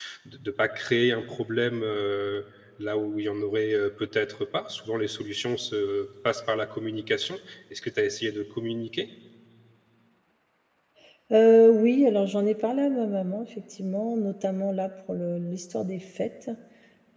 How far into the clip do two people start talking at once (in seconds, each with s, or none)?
none